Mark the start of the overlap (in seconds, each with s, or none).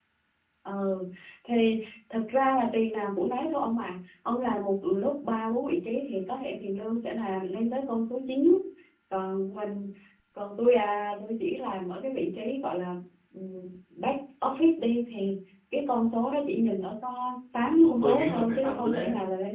17.7 s